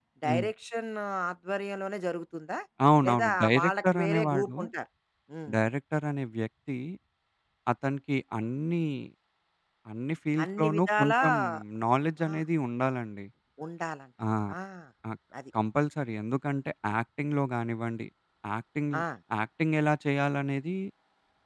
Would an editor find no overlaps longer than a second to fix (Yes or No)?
No